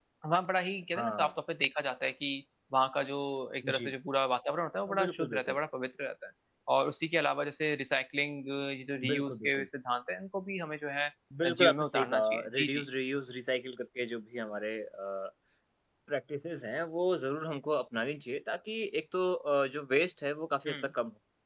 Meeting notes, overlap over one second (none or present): present